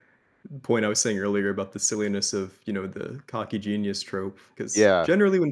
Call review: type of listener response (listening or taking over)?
listening